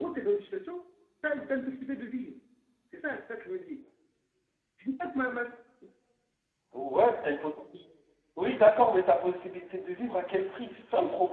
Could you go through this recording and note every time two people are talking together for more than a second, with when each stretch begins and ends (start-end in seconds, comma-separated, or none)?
none